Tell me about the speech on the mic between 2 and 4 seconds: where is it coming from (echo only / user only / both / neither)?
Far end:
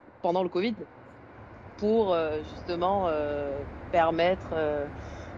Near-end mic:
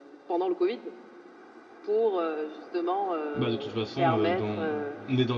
both